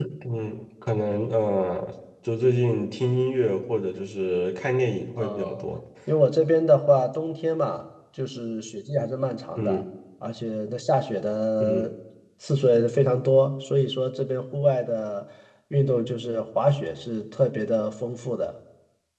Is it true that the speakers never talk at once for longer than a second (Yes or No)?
Yes